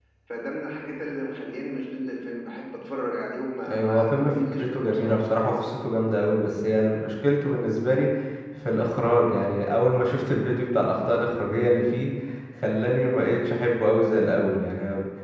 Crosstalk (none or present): present